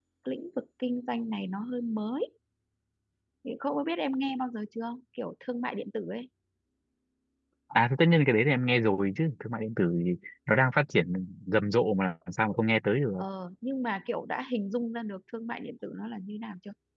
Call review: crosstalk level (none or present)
none